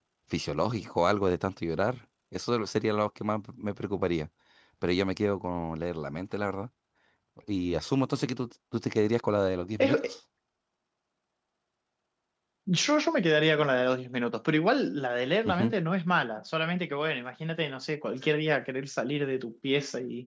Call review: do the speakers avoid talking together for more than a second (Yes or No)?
Yes